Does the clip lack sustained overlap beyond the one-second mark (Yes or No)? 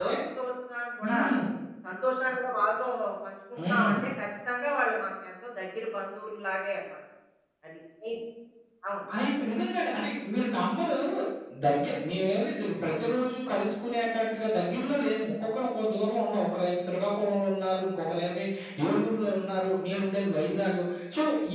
Yes